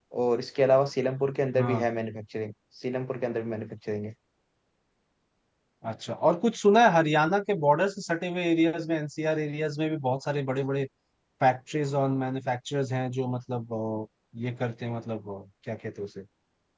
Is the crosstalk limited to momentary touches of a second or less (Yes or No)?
Yes